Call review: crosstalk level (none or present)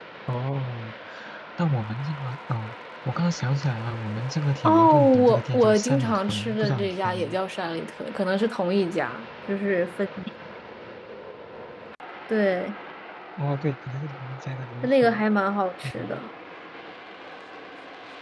present